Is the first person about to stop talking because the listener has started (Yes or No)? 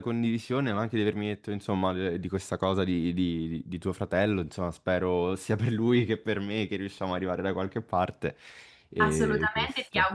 Yes